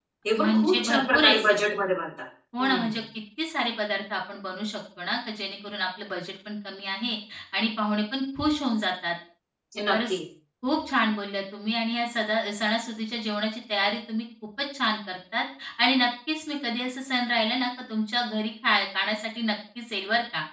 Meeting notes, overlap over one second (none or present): present